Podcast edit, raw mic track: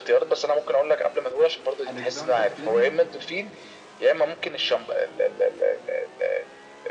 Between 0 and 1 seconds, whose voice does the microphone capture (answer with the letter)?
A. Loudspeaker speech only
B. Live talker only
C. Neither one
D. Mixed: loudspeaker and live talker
A